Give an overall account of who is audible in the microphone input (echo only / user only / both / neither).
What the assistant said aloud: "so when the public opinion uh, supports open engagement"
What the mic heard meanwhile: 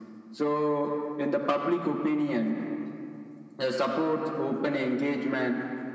echo only